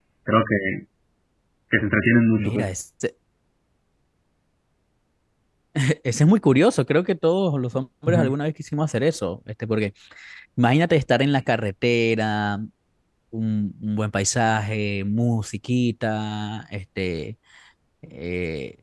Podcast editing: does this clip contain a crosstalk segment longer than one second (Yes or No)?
No